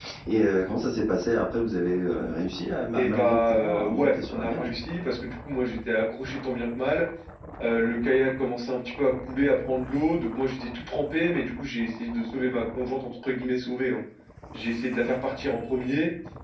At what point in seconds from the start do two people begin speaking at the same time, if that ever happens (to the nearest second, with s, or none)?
3 s